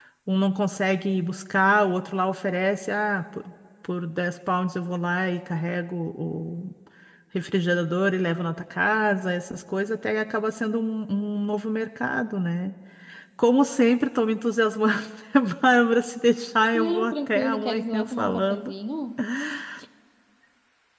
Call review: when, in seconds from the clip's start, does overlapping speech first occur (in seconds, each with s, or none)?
16.7 s